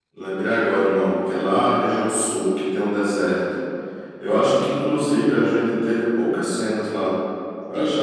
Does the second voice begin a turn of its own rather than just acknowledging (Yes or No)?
No